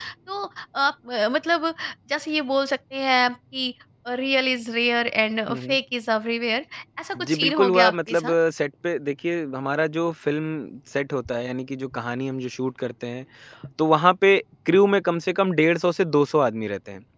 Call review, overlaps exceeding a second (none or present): present